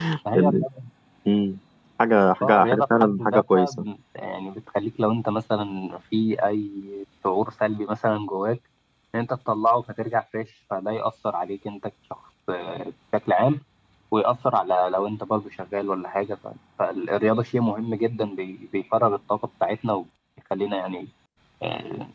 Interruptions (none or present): present